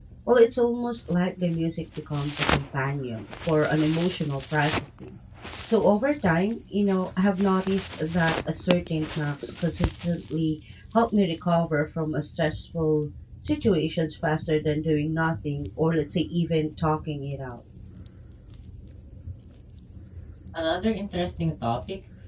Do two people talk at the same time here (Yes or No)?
No